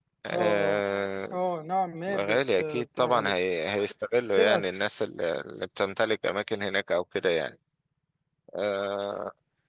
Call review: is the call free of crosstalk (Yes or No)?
No